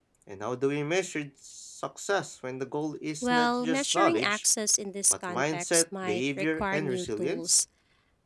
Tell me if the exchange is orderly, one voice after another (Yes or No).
No